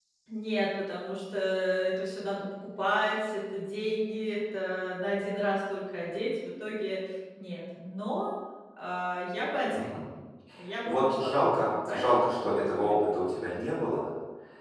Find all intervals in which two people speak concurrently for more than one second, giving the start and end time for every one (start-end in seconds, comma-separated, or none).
10.8-13.0